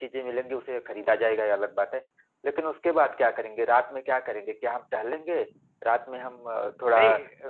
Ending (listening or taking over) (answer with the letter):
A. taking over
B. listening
A